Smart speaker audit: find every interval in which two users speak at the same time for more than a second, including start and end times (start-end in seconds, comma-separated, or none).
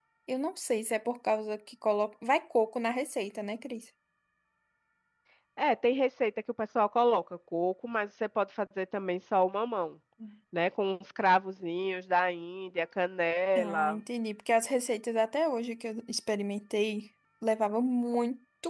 none